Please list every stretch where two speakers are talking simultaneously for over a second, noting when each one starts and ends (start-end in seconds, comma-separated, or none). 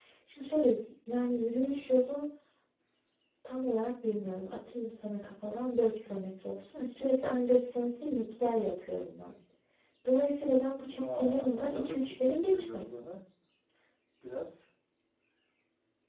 10.9-12.8